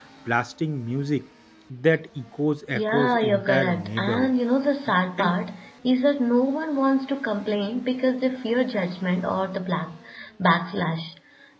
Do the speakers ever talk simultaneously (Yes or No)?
Yes